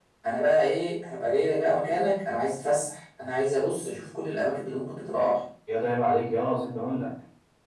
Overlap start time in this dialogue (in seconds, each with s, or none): none